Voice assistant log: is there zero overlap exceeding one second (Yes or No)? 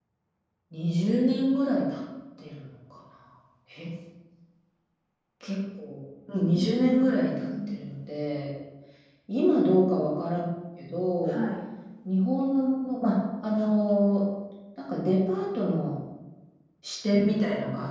No